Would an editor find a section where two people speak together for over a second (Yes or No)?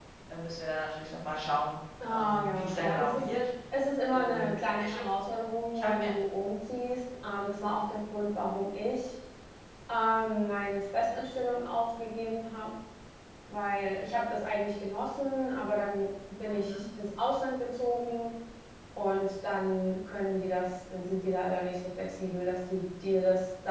Yes